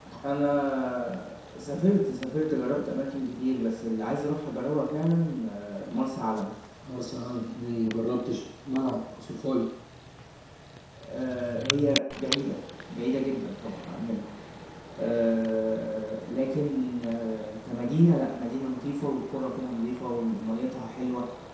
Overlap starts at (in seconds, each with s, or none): none